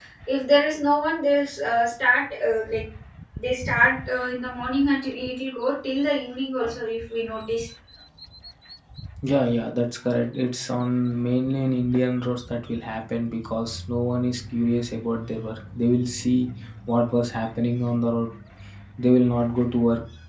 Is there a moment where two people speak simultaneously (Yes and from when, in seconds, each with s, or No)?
No